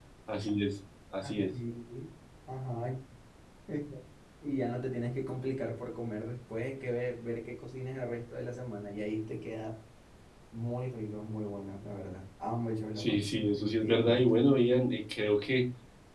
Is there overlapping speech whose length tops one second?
Yes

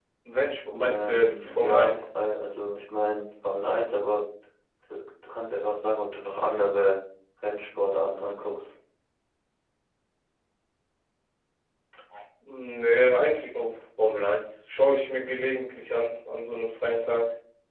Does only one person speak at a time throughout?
No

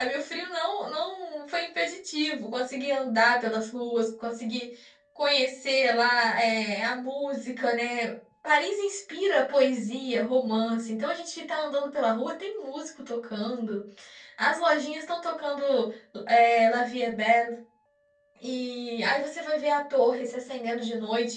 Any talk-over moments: No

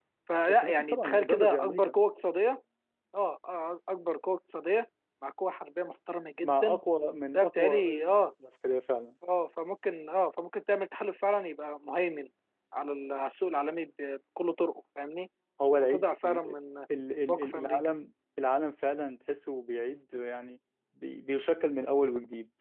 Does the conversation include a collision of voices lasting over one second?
Yes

